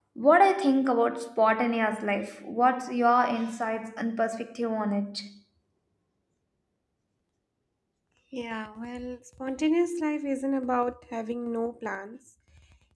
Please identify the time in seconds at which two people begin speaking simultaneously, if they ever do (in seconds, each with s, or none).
none